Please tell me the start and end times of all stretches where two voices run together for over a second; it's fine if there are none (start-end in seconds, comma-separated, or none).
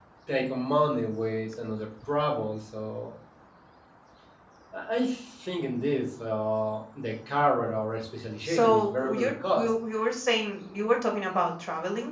8.4-9.7